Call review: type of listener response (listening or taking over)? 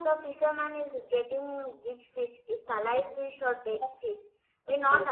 listening